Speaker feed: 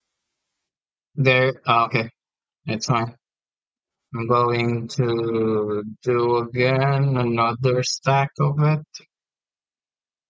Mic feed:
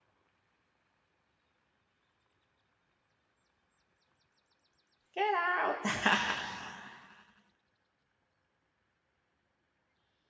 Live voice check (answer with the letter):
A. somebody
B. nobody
A